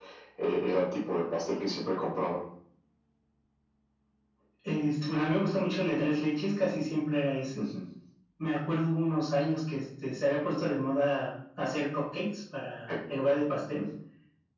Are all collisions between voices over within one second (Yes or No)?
Yes